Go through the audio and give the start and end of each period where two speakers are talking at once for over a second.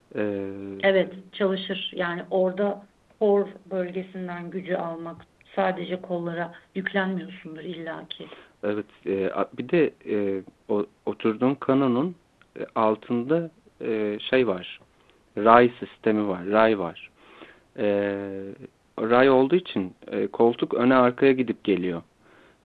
none

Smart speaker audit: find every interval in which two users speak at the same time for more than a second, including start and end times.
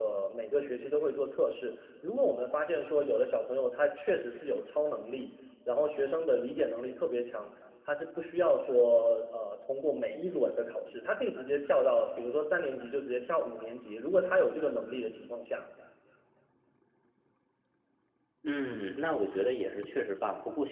none

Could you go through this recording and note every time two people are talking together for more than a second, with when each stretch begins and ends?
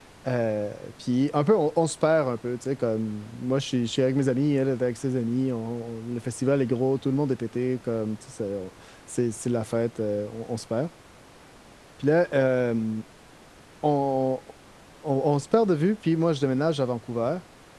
none

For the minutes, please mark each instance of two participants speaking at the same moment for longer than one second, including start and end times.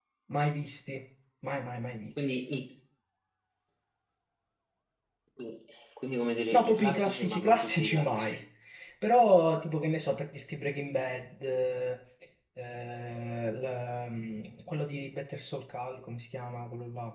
6.5-8.4

